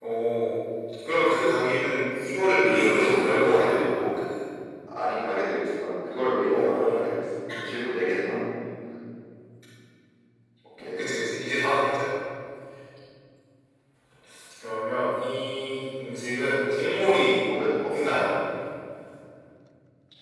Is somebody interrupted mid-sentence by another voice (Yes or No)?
Yes